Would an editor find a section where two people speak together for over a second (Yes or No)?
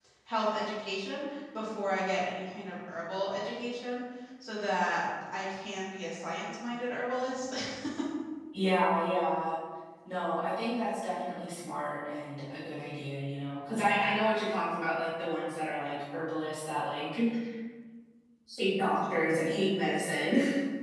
No